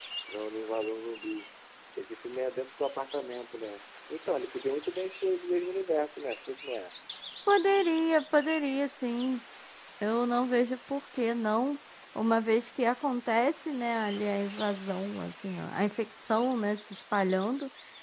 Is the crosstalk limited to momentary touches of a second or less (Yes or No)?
Yes